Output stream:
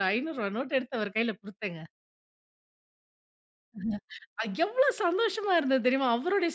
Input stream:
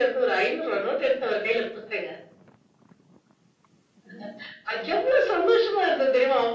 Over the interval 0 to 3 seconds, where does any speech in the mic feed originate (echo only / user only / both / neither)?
echo only